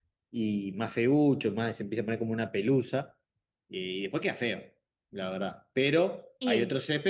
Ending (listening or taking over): listening